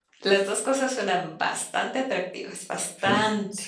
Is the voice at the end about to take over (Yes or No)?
Yes